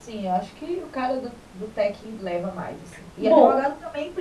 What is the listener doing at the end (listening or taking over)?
listening